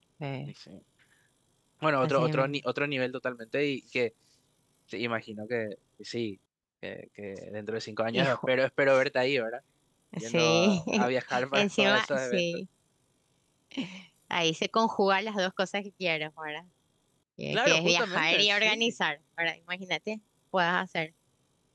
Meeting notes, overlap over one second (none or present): present